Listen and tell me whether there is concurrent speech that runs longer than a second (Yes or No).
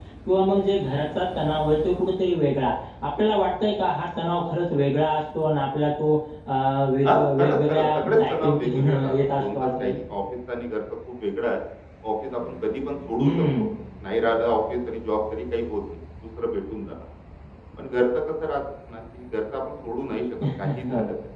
Yes